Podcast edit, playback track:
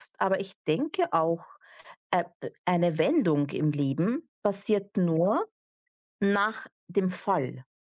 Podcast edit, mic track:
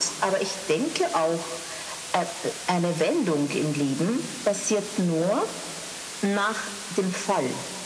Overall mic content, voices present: echo only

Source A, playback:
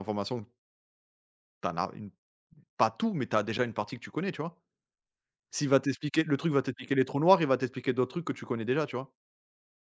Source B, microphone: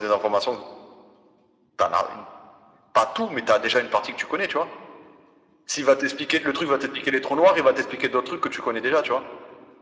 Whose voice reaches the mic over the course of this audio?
echo only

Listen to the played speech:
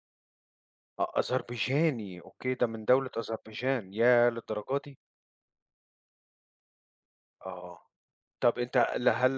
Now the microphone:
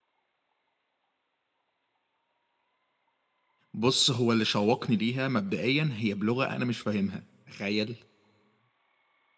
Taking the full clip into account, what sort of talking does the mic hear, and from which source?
user only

